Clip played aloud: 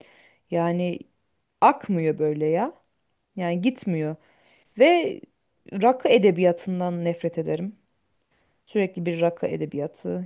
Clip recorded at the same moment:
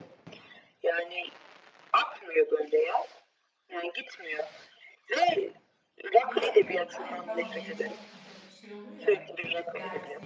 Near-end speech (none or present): present